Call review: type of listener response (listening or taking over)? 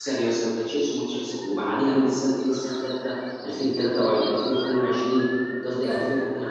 listening